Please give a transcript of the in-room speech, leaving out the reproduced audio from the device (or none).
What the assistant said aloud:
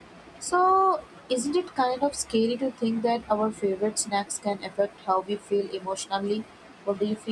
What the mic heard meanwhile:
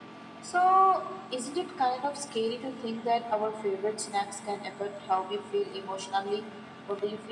none